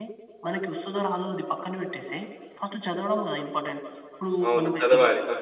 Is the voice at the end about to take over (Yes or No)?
Yes